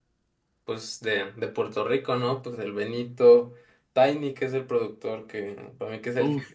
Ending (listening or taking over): taking over